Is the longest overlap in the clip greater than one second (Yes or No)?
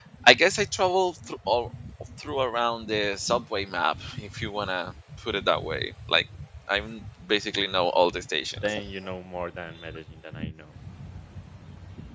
No